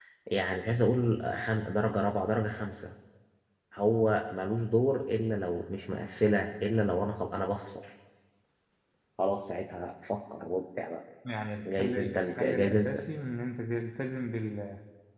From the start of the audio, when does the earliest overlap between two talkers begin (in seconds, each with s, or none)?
11.7 s